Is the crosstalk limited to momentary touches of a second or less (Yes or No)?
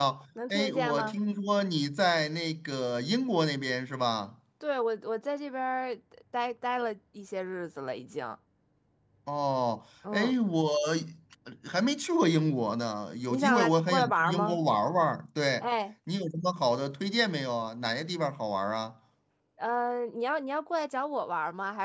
No